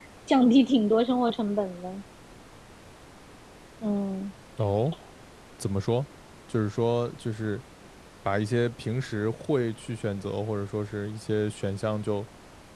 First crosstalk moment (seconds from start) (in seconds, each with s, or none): none